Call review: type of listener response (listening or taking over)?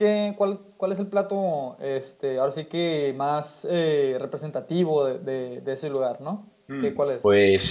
taking over